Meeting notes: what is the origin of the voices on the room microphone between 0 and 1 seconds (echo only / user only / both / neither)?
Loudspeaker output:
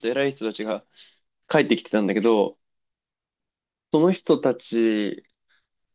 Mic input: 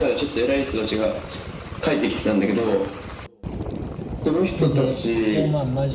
echo only